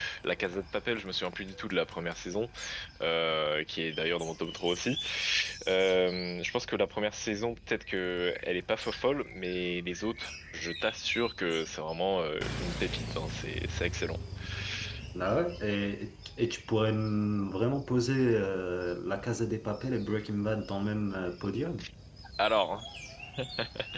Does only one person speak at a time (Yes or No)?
Yes